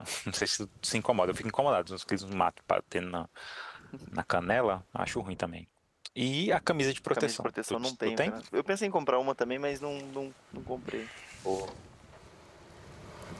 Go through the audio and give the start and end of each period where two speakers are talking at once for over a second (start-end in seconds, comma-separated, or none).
7.1-8.3